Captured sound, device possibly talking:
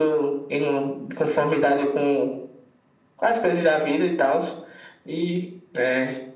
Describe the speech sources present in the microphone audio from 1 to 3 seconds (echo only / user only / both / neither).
echo only